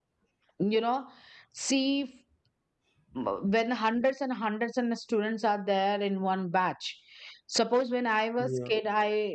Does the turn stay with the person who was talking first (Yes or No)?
Yes